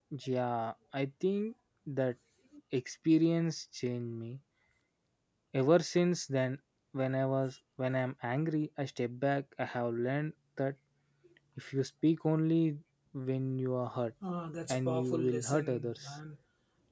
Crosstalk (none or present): present